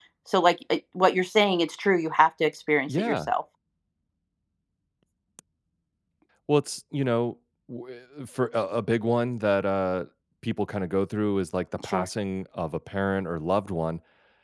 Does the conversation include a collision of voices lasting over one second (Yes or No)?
No